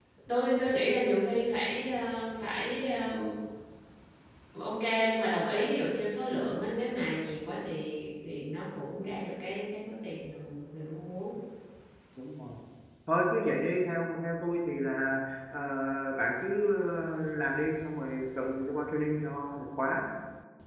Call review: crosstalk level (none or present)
none